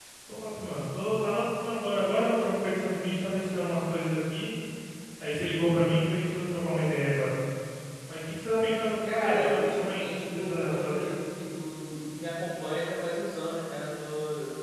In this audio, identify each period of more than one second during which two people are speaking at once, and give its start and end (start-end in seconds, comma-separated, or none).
9.0-11.1